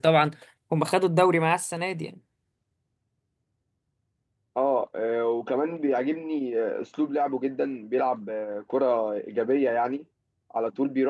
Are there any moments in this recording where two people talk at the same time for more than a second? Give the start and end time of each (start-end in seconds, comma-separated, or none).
none